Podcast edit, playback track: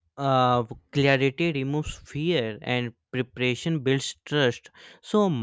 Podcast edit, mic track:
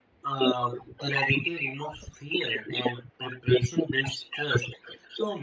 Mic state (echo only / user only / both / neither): echo only